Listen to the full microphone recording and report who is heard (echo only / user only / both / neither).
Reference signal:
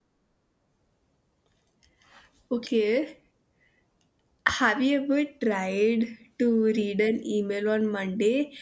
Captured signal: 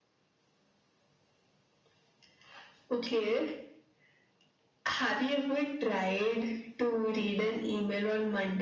echo only